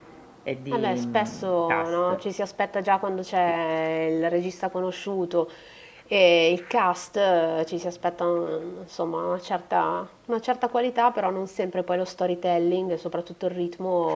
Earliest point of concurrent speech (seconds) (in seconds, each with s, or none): 0.7 s